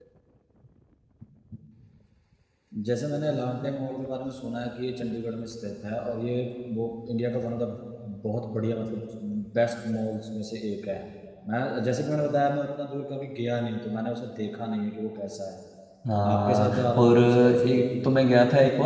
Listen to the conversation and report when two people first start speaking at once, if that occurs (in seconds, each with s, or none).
16.3 s